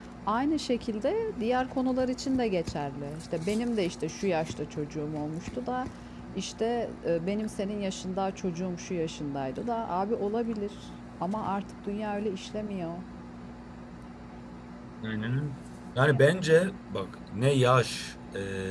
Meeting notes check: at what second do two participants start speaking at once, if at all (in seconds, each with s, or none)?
none